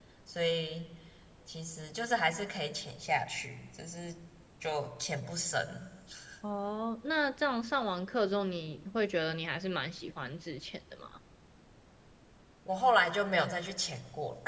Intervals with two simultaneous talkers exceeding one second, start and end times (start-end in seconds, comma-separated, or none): none